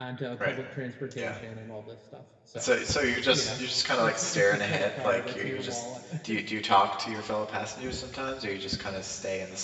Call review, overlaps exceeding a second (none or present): present